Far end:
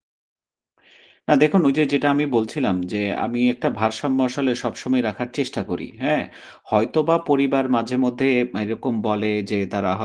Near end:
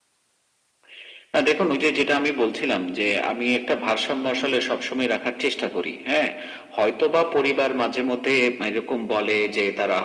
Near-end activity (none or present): none